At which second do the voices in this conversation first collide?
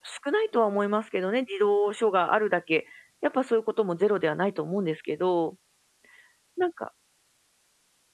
none

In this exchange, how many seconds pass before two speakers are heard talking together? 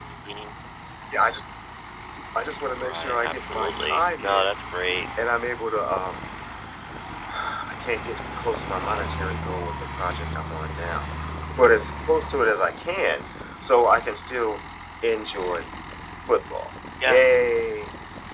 2.8 s

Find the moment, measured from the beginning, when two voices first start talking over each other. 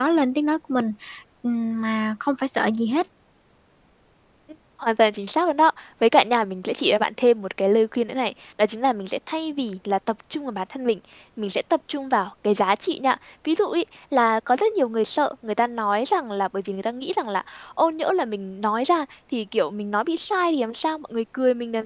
none

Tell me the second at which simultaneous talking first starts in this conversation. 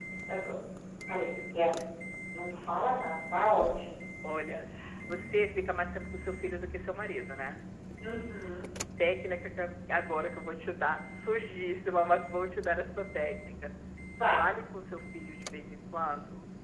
none

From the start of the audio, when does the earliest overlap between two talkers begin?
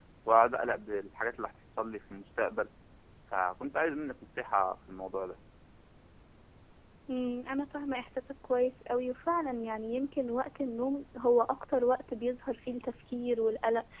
none

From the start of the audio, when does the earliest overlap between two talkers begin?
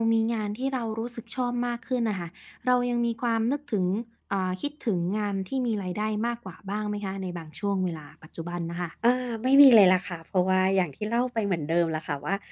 none

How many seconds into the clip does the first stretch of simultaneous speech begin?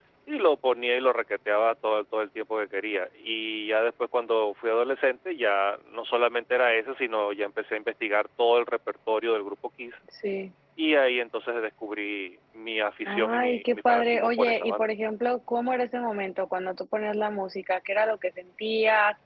13.1 s

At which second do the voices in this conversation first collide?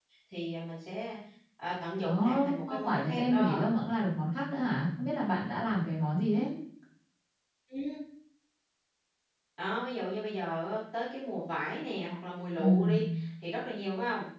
2.0 s

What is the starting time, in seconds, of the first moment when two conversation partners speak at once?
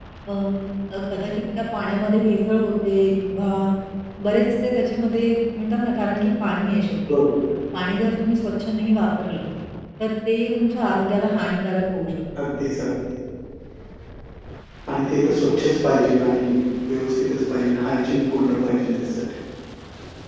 none

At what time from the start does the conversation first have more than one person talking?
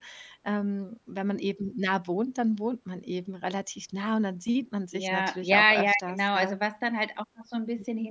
4.9 s

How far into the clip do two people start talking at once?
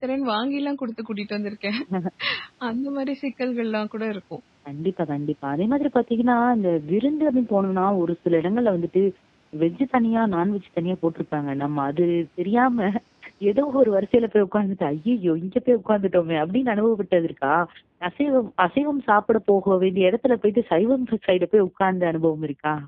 none

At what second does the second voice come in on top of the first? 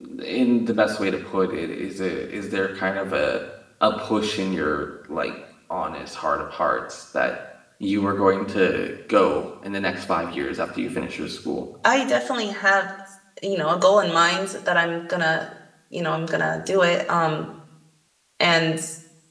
none

